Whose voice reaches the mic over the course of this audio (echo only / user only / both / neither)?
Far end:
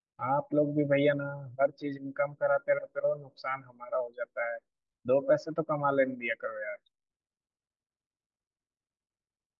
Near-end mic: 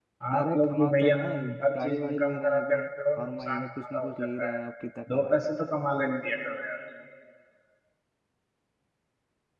both